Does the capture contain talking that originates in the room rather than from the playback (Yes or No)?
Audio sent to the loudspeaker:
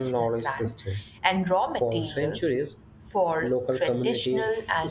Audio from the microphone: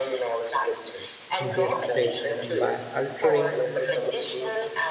Yes